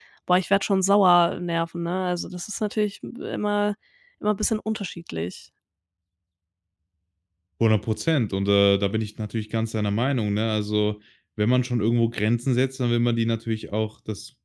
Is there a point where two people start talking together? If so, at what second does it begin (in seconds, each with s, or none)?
none